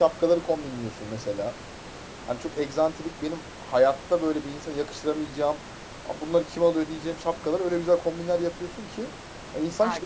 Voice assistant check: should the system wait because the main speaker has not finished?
No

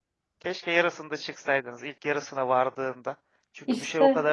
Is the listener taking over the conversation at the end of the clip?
No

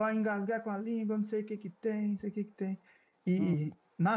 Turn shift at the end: No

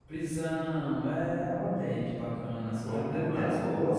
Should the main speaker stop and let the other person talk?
Yes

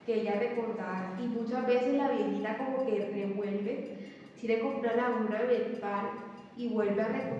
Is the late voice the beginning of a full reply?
No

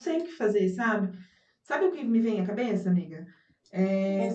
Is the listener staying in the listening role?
Yes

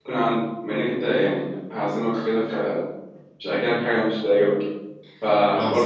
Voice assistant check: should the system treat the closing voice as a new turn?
No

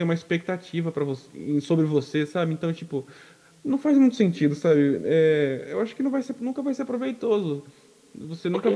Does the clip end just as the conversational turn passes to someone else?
No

